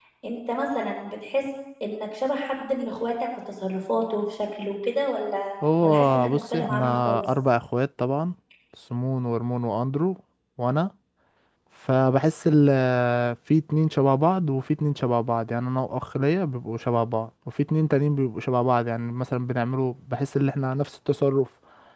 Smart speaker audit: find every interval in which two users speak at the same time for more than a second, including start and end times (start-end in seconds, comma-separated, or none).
5.8-7.2